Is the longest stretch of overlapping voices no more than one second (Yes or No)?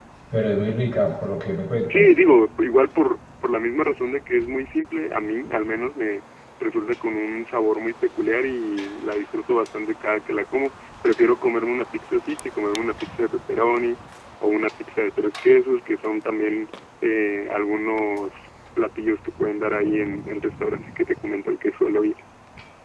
Yes